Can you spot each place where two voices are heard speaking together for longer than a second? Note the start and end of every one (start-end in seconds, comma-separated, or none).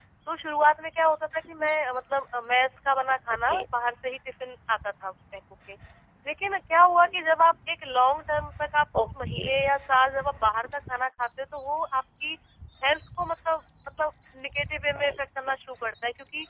none